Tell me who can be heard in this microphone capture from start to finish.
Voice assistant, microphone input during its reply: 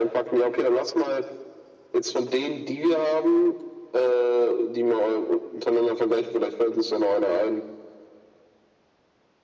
echo only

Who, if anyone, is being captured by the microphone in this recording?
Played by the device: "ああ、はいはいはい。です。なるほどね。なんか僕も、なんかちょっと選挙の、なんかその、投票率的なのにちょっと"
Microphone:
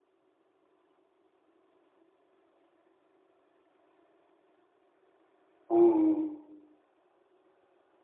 user only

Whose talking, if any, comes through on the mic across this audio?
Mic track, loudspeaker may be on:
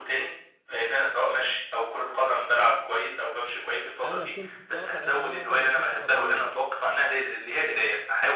both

